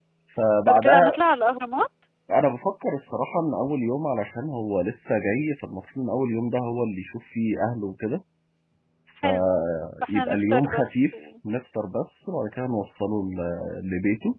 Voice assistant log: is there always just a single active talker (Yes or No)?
No